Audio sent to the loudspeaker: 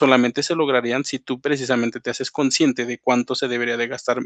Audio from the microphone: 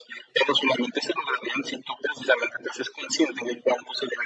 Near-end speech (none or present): none